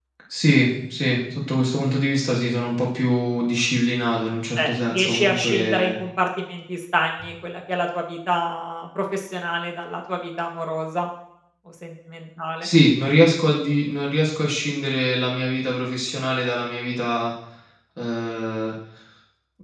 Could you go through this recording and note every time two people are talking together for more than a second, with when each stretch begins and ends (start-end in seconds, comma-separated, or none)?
4.6-6.0